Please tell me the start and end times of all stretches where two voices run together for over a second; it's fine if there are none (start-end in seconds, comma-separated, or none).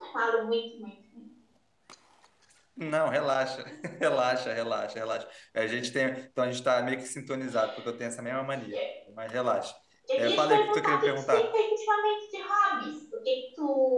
10.2-11.6